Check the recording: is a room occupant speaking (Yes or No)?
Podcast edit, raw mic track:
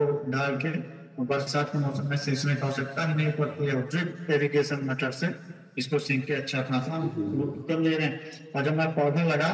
Yes